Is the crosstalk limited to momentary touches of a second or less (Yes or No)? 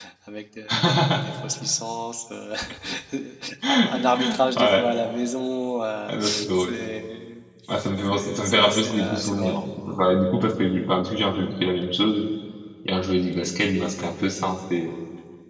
No